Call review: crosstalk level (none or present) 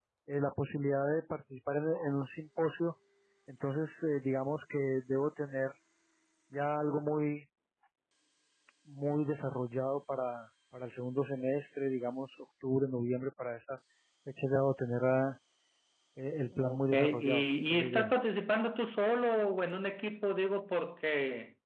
present